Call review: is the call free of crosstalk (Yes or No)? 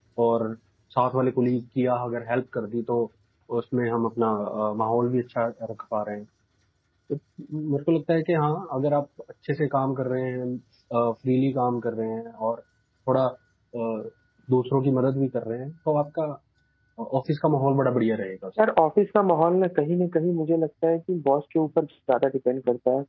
Yes